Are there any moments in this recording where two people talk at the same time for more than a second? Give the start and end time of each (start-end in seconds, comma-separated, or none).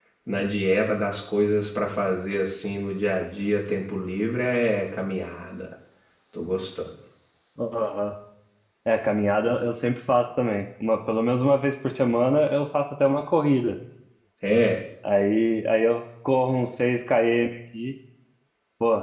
none